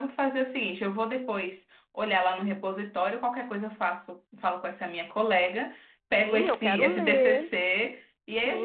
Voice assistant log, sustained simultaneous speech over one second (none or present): present